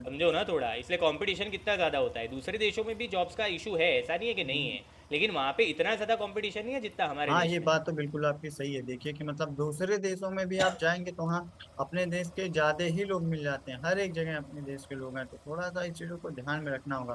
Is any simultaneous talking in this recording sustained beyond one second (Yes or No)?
No